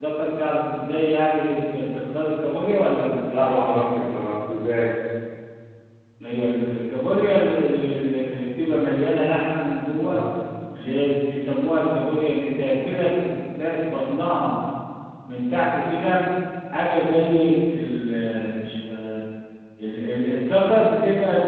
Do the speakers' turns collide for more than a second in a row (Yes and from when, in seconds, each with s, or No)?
No